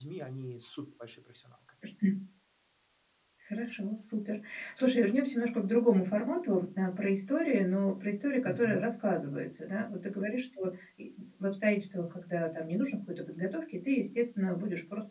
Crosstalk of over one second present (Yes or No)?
No